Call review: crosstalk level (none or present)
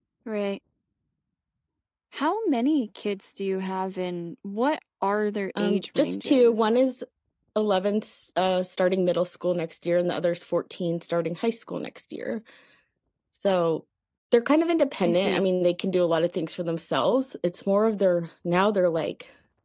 present